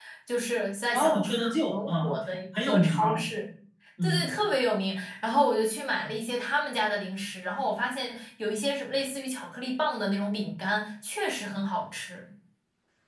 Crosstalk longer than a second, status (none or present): present